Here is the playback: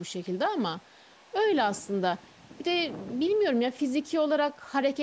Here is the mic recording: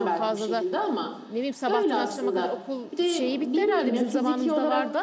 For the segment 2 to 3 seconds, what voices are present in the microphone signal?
both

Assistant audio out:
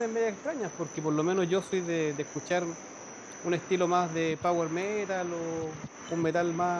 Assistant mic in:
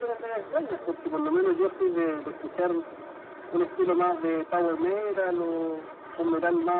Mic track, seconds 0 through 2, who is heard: echo only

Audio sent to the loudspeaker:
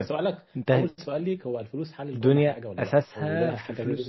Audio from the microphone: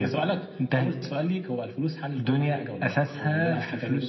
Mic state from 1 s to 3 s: echo only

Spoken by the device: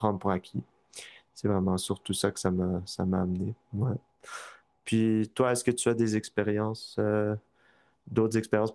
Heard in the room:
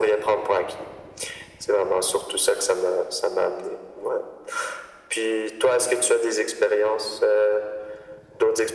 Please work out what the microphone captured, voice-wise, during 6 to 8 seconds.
echo only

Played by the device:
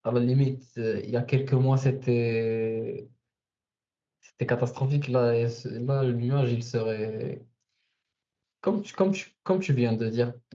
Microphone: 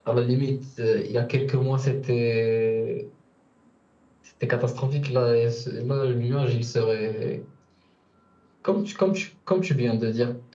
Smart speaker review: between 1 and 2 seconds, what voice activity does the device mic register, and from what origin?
echo only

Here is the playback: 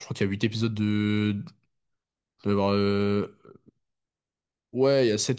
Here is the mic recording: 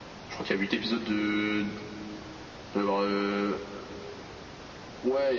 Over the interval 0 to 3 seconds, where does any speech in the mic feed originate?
echo only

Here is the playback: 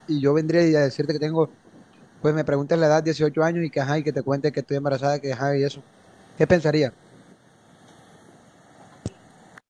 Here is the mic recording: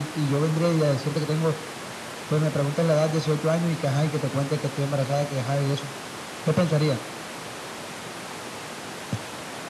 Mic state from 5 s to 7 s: echo only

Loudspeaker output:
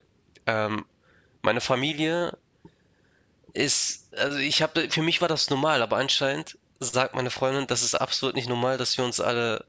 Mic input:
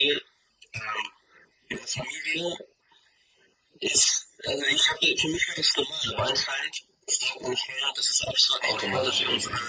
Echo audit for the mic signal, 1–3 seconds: echo only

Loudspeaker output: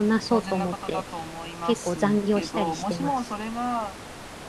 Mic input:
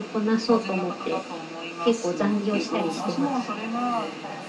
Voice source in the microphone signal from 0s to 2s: echo only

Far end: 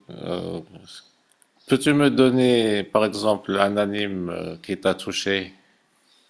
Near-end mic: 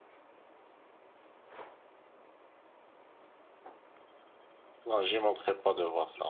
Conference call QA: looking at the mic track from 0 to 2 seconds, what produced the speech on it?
neither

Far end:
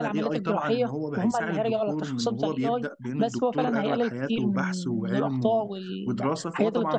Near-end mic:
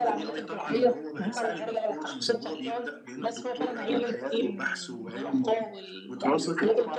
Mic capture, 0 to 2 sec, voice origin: echo only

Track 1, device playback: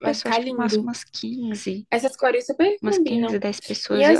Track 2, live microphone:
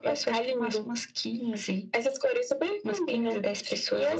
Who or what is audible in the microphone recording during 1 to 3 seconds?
echo only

